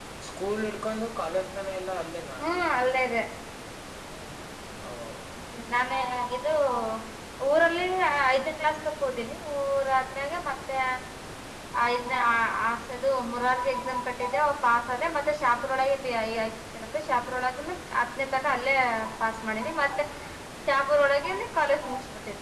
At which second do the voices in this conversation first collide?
none

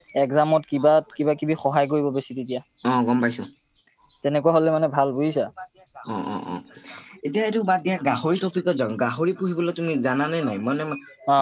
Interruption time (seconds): none

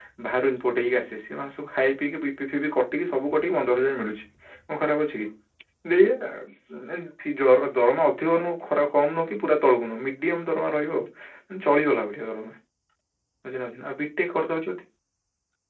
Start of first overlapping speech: none

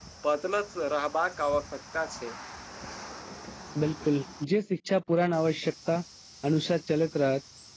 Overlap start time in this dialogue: none

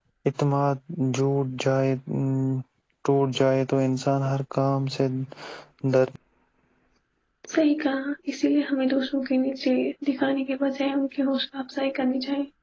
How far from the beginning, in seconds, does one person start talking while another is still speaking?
none

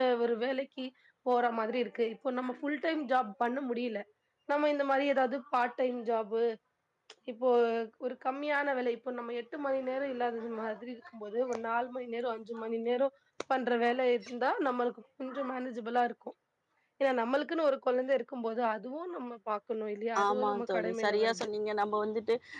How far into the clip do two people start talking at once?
20.1 s

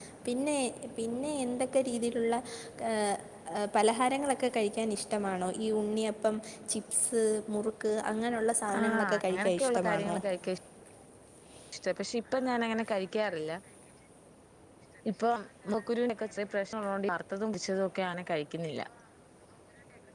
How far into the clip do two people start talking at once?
8.7 s

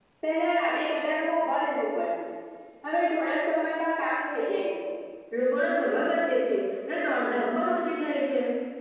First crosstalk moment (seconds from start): none

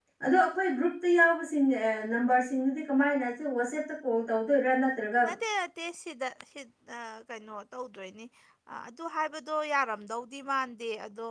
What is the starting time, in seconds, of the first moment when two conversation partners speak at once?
none

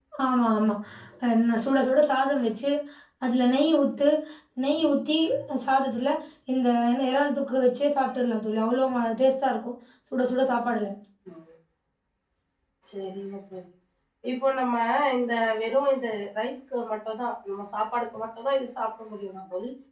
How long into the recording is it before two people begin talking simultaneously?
none

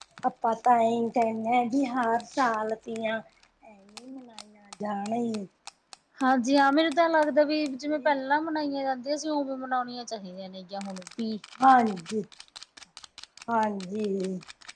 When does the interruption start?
none

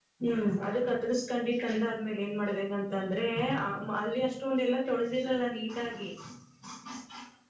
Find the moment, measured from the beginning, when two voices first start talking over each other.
none

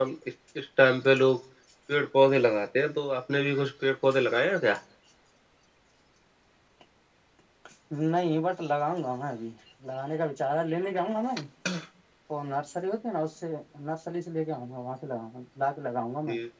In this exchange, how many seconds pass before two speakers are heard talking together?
none

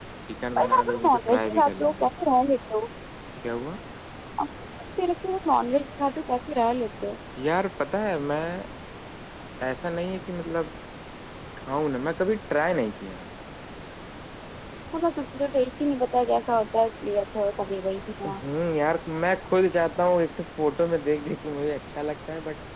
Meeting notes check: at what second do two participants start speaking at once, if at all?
0.6 s

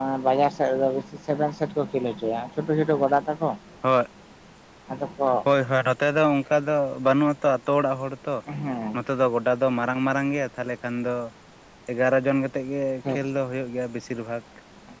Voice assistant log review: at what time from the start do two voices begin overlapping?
none

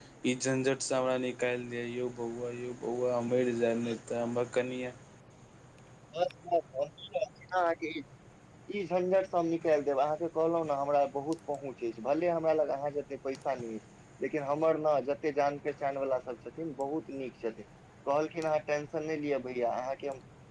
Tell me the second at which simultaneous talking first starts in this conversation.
none

